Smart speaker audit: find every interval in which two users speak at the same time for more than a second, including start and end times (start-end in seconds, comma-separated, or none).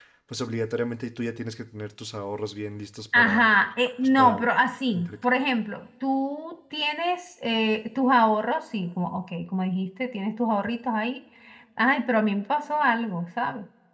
none